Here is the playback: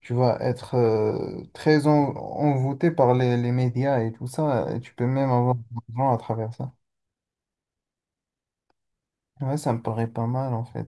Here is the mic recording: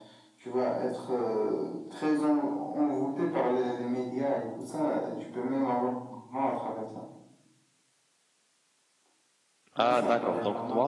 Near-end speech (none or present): present